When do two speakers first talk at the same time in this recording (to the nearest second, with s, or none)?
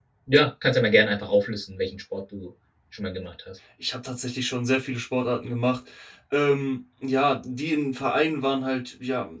none